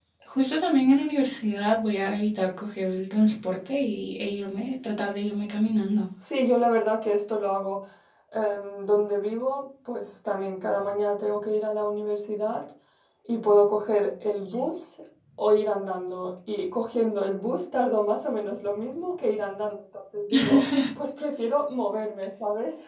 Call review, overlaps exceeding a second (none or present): none